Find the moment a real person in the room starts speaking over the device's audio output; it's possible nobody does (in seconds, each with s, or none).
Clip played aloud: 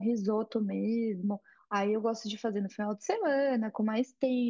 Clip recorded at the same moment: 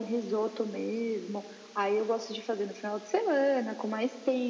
none